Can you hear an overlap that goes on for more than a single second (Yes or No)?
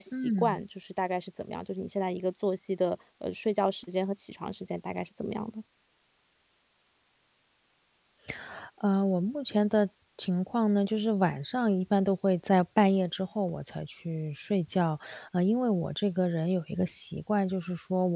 No